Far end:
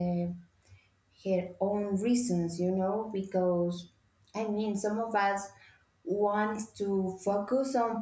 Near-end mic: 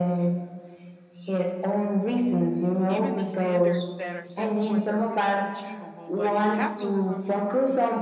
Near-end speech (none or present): present